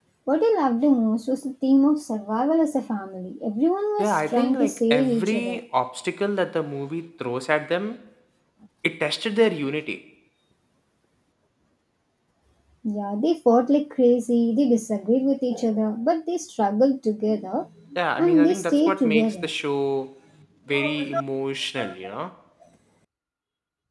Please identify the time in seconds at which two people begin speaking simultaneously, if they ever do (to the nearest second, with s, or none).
4 s